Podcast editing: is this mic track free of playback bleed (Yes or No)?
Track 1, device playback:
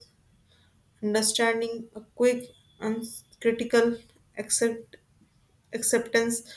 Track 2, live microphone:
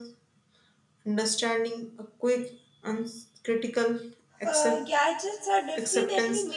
No